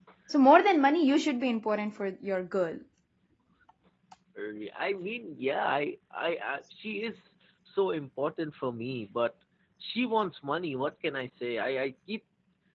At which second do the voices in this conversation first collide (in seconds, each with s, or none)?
none